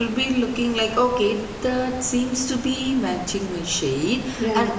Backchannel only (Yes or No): Yes